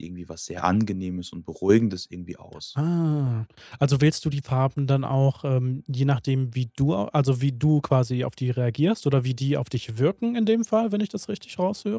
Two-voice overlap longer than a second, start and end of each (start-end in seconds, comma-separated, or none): none